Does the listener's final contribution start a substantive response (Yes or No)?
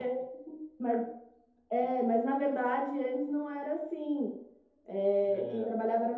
No